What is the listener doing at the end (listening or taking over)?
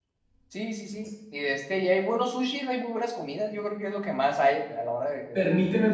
taking over